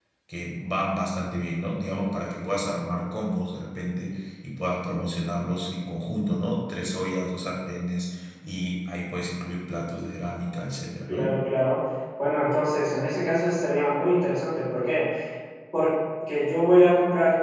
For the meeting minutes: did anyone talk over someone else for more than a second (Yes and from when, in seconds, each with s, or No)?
No